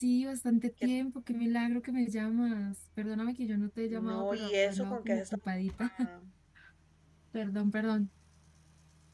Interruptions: present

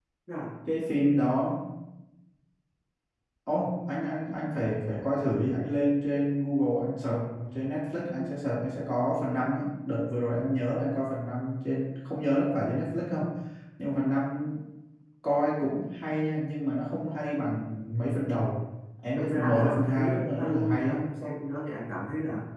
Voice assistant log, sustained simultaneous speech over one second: present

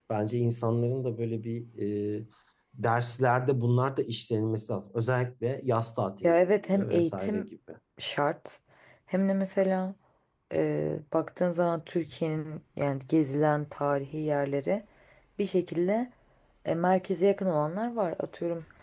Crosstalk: present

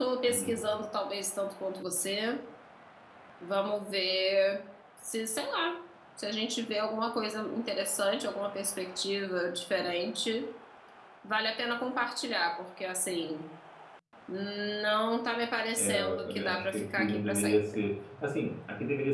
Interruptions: present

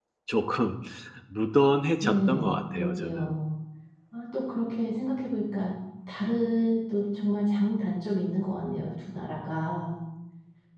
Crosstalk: present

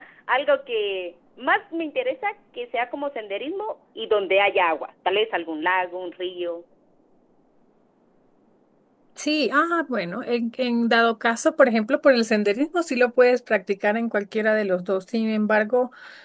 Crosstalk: none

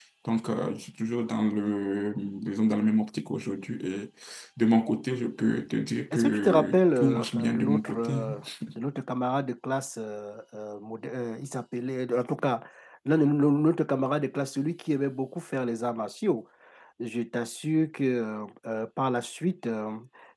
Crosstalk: present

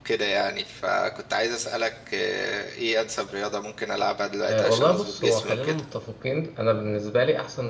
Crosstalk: present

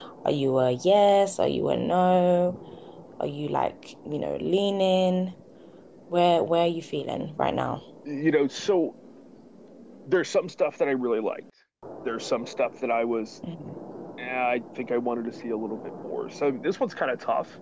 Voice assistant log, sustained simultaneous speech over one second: none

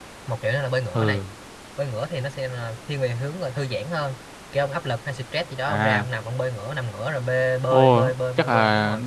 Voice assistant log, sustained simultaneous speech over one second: present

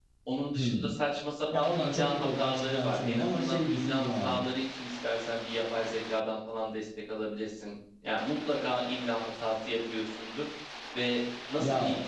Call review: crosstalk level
present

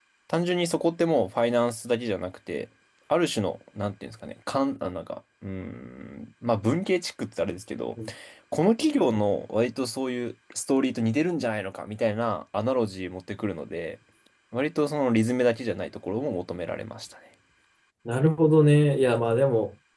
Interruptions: none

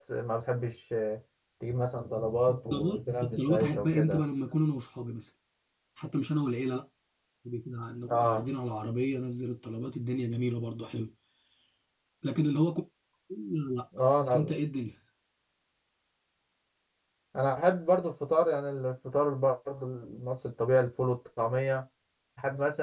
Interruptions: present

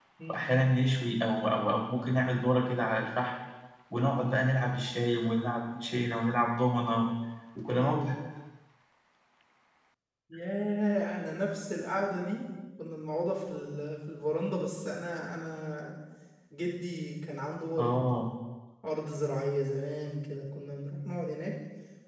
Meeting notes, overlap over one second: none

